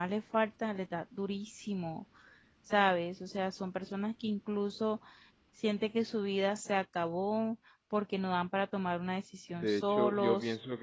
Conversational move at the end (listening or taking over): taking over